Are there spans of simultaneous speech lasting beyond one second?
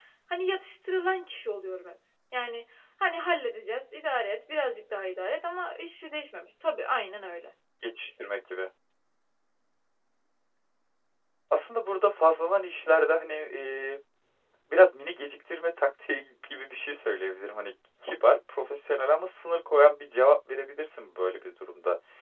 No

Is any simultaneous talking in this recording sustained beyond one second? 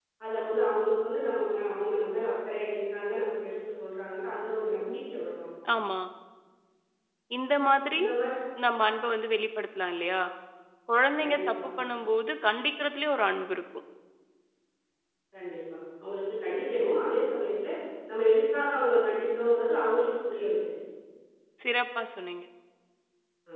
No

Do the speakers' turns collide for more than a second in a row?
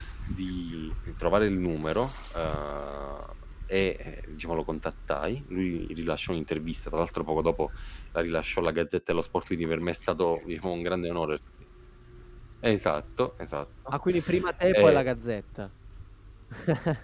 No

